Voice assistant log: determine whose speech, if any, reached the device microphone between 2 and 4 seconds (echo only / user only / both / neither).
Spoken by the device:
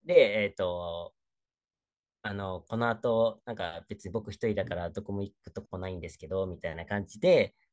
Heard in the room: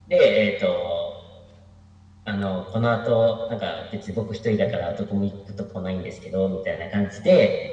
echo only